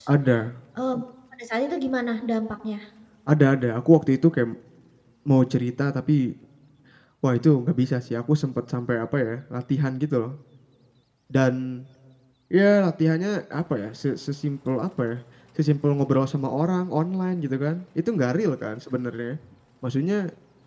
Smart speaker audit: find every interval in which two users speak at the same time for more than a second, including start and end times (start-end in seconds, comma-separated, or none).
none